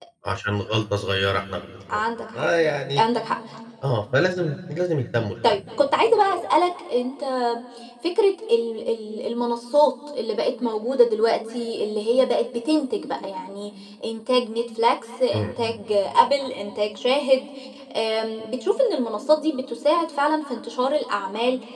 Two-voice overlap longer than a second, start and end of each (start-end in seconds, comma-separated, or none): none